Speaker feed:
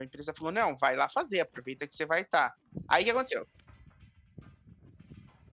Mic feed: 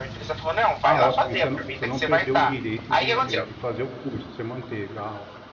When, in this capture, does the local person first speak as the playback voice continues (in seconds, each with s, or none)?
0.8 s